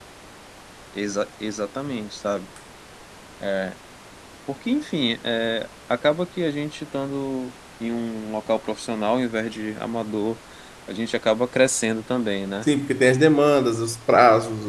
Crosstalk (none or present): none